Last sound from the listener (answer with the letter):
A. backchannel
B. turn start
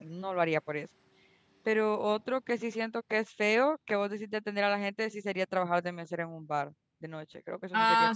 B